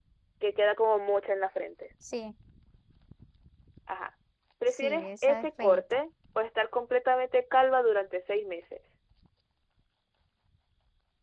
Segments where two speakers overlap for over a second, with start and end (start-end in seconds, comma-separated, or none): 4.7-6.0